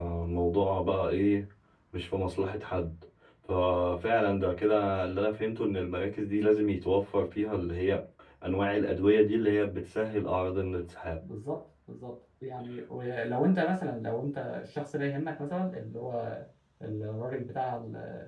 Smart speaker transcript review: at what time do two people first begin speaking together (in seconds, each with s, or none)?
none